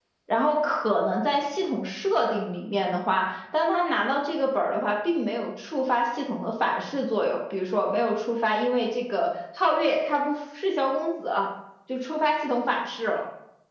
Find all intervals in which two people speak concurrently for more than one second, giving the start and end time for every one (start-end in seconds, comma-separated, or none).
none